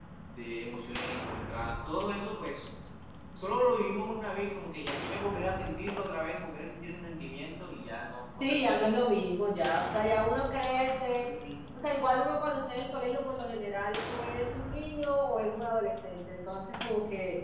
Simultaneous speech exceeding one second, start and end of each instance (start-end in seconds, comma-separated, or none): none